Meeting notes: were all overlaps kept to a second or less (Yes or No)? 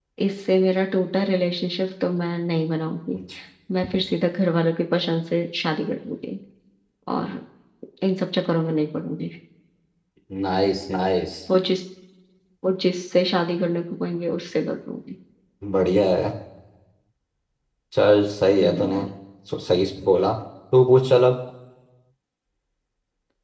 Yes